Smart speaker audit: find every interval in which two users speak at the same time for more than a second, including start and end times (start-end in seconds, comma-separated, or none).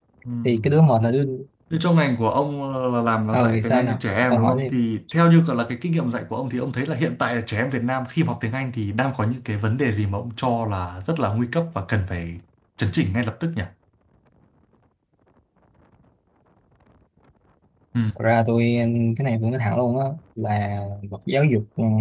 3.3-4.8